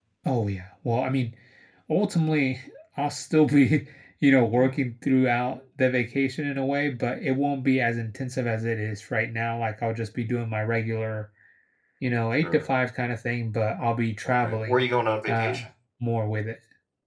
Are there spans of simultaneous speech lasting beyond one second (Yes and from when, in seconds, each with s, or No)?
No